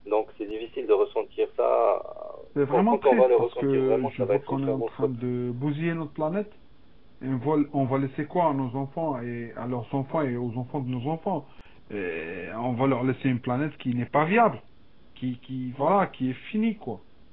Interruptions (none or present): present